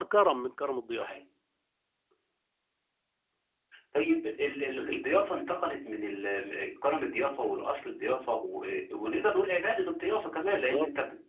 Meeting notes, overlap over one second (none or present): none